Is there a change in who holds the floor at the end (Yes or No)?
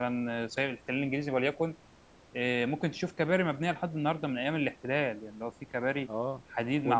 Yes